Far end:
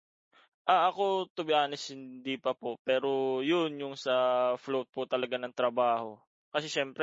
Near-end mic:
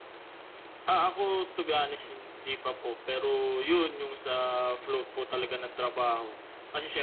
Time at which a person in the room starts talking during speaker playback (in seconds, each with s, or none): none